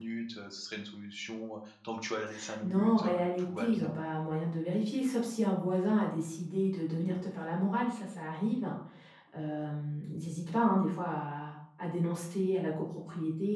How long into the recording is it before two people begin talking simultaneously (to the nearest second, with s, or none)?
3 s